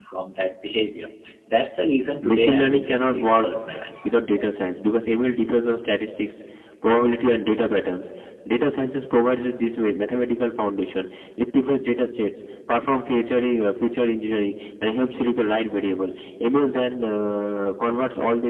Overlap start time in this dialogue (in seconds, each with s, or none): 2.2 s